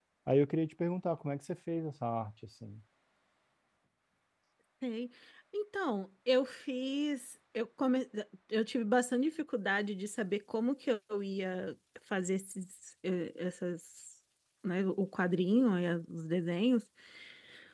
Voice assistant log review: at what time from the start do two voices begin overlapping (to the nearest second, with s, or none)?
none